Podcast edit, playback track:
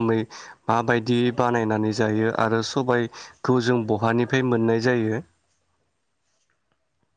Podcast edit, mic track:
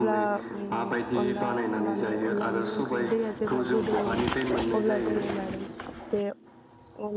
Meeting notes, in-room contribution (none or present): present